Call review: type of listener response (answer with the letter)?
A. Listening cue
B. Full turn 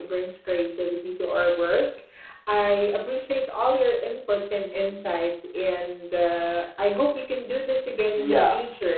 B